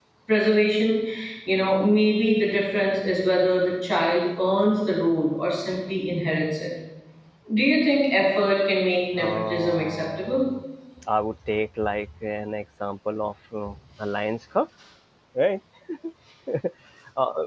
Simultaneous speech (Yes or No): Yes